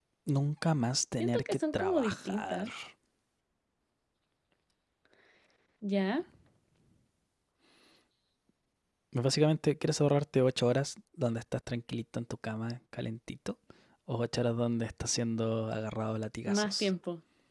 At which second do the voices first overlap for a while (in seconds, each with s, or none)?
1.2 s